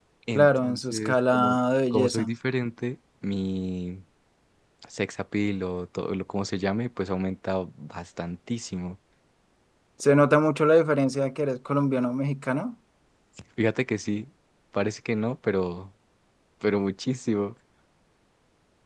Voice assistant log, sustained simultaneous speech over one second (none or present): present